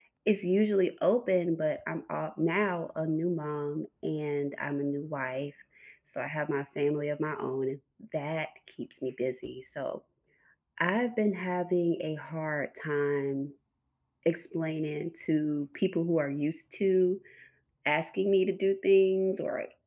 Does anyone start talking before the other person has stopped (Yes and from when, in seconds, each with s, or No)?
No